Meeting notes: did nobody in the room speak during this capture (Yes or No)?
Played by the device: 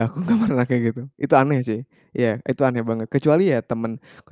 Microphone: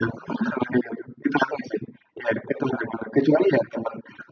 Yes